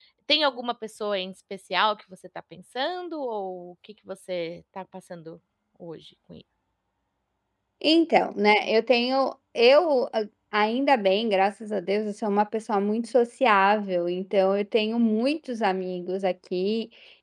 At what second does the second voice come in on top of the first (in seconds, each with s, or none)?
none